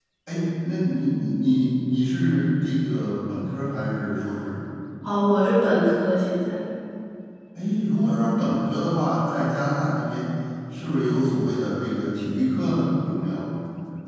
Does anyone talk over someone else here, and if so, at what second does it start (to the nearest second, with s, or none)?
none